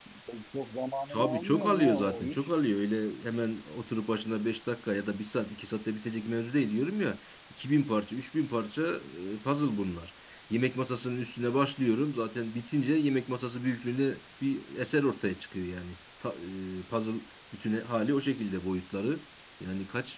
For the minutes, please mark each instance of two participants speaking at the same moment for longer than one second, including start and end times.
1.1-2.5

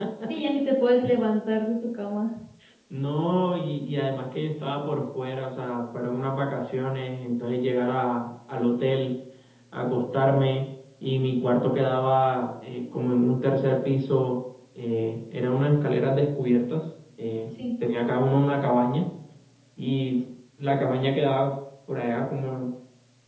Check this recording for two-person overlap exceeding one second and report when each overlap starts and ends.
none

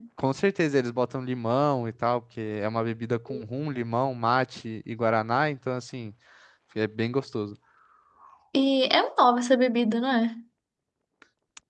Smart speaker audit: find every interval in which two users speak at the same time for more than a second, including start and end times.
none

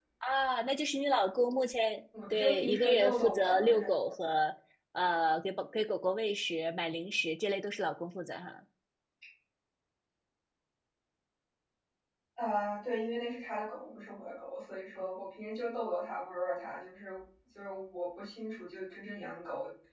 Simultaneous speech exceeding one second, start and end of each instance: 2.3-3.9

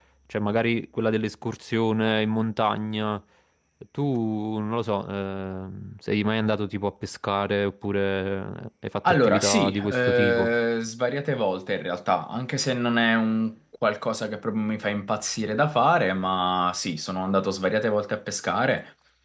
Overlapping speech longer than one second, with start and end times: 9.1-10.5

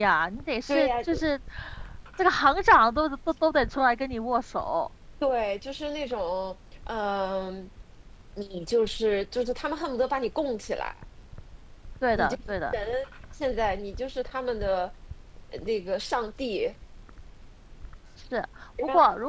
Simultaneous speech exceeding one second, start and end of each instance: none

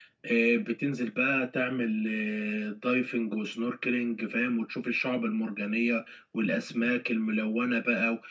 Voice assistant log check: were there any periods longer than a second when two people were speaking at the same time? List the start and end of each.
none

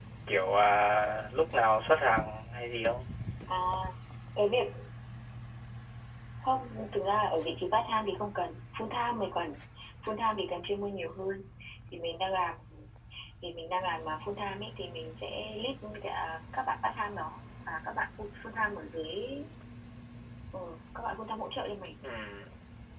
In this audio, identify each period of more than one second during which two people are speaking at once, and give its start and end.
none

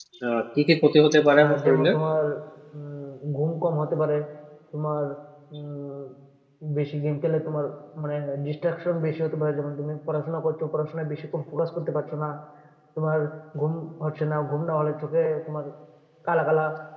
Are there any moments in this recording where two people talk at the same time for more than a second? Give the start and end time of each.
none

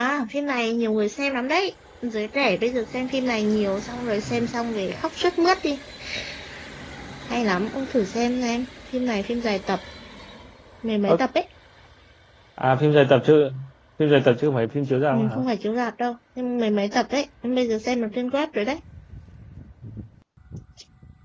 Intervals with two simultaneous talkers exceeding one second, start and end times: none

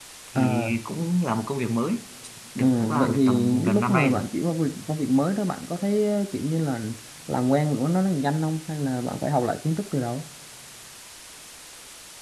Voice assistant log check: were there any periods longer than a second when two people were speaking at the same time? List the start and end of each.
2.6-4.2

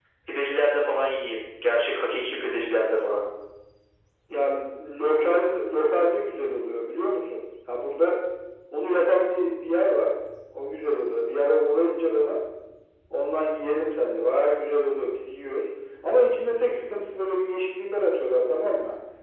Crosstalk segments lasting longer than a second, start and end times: none

